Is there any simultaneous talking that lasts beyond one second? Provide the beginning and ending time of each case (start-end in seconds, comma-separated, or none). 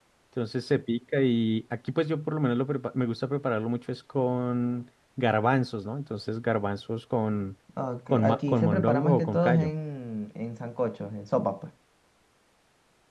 8.1-9.7